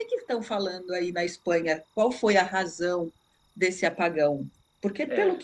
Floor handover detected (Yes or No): No